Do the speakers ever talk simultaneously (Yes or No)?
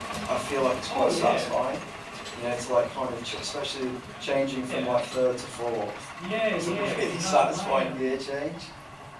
Yes